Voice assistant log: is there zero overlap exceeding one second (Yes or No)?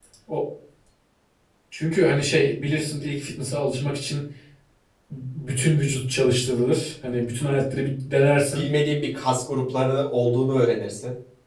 Yes